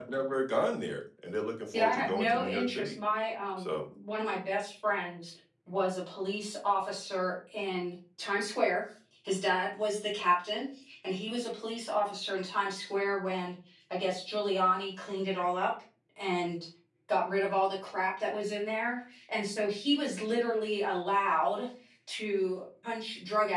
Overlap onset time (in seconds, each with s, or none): 1.7 s